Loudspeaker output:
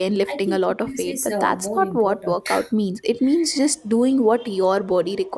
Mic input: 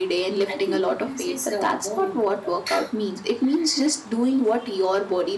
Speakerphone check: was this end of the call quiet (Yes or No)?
Yes